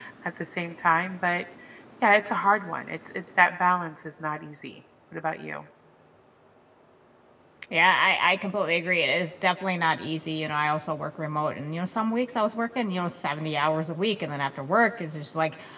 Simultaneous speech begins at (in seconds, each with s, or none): none